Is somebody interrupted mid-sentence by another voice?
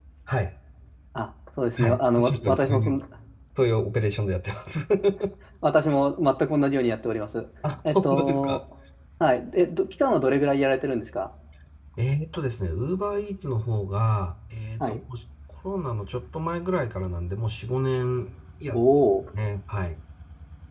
Yes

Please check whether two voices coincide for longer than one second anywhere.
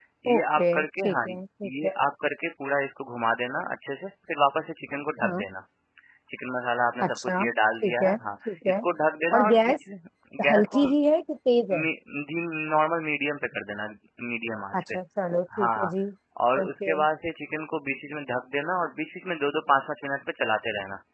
Yes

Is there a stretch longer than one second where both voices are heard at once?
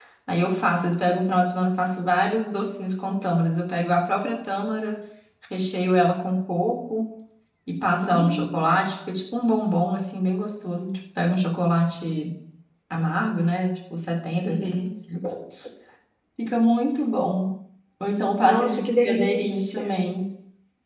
Yes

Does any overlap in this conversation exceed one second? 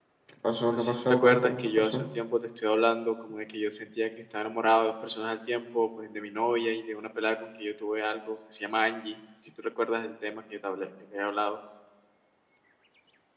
Yes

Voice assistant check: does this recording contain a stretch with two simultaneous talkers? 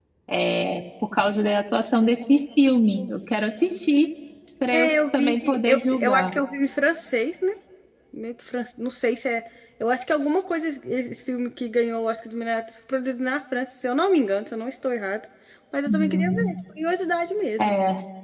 Yes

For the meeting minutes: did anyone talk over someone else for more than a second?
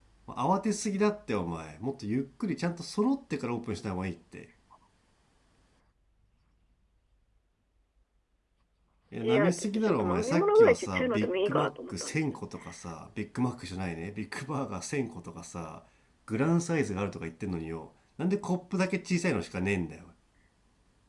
Yes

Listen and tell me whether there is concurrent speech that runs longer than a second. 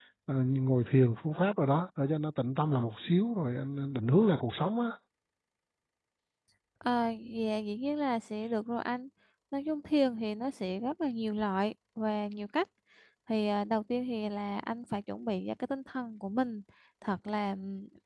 No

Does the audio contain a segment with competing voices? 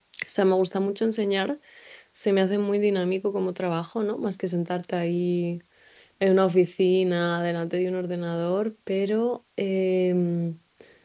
No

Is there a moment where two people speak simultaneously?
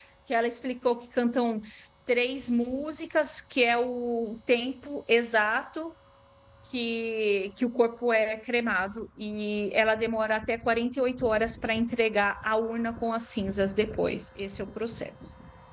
No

